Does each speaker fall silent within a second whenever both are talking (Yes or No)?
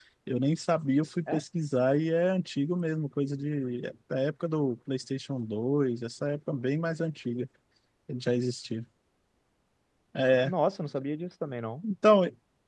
Yes